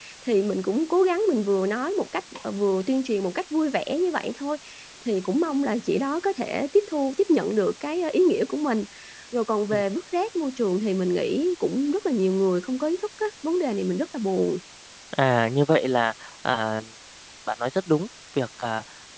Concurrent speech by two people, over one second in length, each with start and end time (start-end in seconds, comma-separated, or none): none